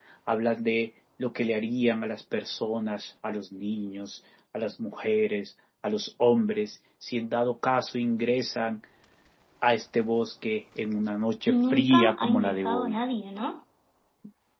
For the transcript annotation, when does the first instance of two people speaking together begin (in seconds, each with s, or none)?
11.5 s